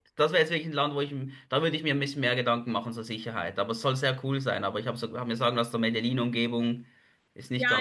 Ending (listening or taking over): taking over